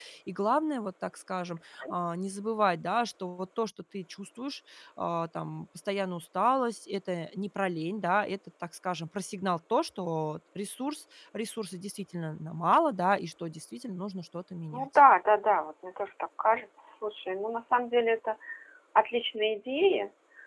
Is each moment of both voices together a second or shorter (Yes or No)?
Yes